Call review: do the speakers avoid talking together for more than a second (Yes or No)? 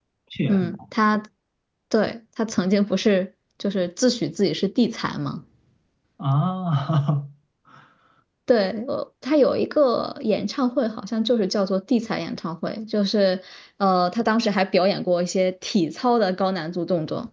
Yes